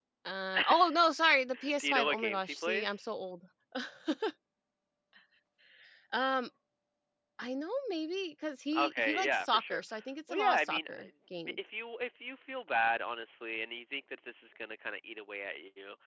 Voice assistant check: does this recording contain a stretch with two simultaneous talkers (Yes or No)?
Yes